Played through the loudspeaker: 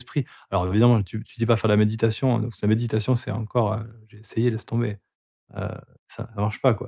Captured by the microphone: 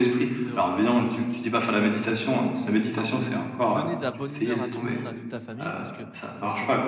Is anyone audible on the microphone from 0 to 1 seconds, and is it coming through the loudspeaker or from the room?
both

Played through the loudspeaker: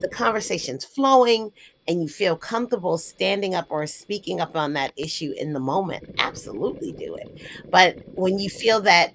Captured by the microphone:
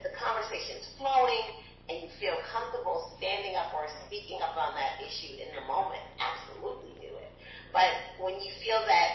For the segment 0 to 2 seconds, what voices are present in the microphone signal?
echo only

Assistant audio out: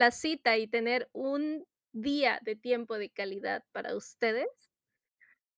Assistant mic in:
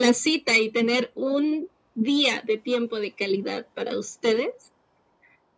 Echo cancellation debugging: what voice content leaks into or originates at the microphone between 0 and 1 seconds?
echo only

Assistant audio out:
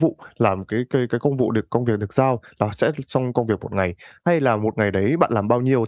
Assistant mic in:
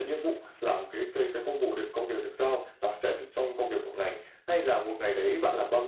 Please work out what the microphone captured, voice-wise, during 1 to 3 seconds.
echo only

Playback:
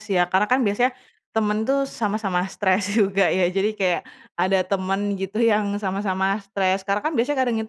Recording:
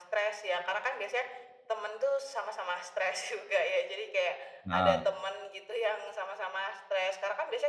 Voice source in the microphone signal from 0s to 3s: echo only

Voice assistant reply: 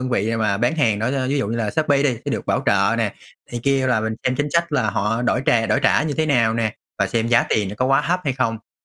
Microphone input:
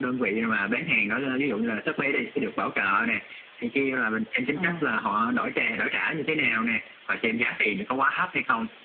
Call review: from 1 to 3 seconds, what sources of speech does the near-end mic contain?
echo only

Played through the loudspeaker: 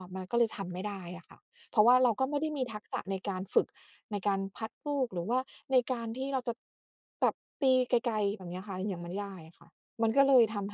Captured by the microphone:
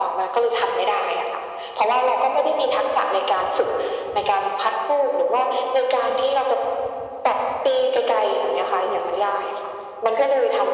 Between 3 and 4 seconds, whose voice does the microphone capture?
echo only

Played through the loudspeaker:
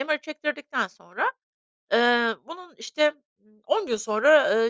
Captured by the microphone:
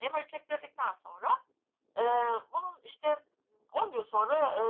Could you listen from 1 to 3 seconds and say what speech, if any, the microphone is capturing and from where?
echo only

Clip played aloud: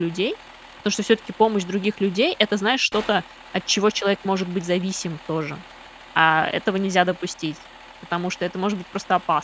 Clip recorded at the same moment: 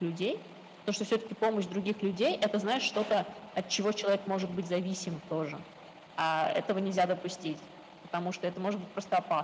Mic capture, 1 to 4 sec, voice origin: echo only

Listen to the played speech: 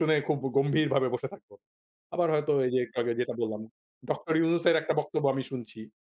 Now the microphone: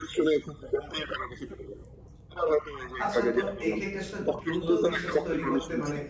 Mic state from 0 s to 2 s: echo only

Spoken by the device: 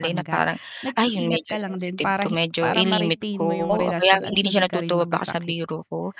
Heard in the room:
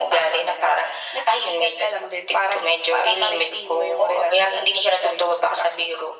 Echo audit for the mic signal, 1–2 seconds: echo only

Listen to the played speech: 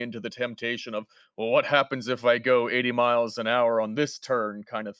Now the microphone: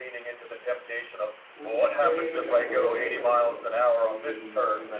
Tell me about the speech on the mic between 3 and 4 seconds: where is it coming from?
both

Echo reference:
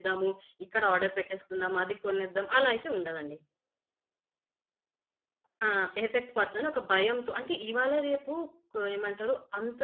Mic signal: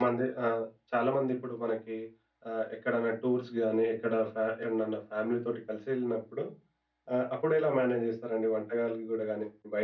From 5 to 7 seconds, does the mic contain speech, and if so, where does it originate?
user only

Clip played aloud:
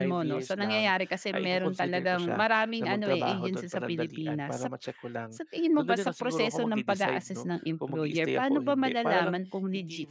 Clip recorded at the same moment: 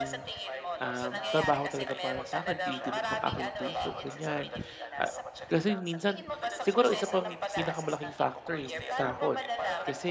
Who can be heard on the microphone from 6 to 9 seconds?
both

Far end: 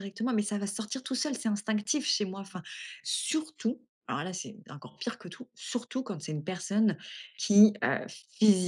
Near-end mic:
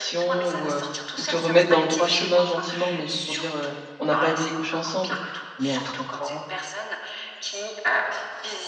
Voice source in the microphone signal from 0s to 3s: both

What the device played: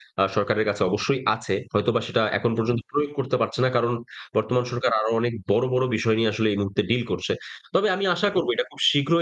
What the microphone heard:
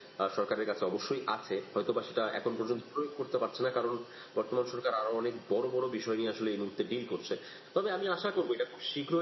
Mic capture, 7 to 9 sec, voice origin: echo only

